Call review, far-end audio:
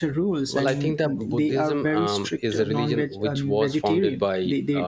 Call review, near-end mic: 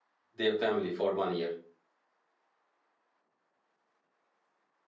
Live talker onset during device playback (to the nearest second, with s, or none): 0 s